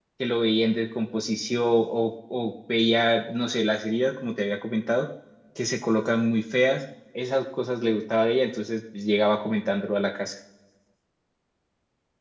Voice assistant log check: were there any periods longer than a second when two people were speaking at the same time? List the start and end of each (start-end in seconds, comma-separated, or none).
none